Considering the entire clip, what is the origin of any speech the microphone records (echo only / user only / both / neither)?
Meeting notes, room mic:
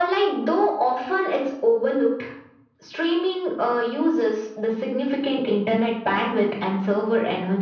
echo only